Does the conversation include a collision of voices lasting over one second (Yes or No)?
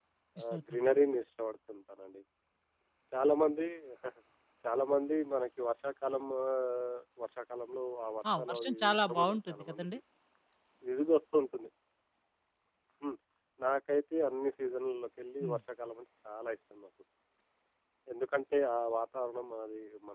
Yes